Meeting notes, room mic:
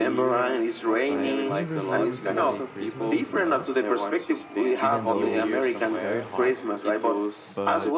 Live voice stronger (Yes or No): No